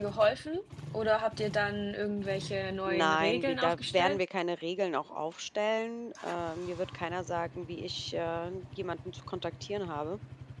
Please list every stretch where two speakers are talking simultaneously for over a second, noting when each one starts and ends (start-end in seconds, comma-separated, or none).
2.8-4.2